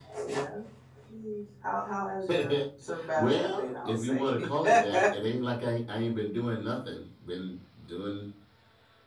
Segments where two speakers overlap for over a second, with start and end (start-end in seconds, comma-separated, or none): 3.1-5.0